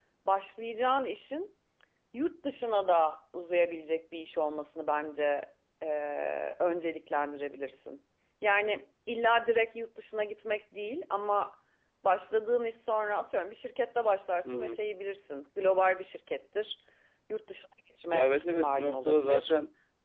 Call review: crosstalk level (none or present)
present